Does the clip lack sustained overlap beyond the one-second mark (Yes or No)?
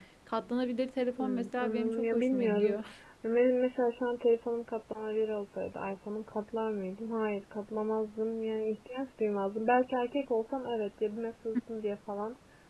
No